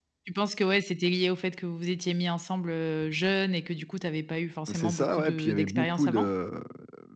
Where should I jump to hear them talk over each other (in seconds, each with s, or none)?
4.7 s